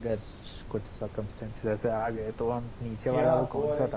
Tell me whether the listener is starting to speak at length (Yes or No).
Yes